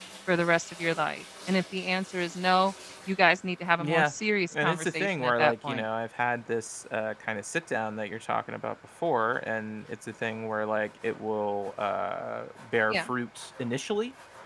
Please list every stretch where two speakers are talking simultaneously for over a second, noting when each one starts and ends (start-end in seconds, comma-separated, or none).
4.6-5.8